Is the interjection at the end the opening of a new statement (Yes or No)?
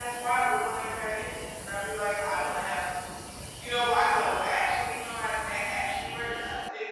Yes